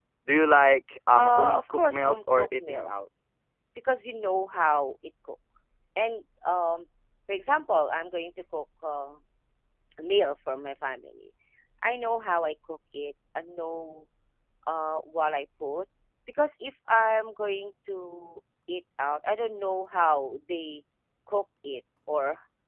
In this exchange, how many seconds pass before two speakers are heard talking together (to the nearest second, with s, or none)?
1 s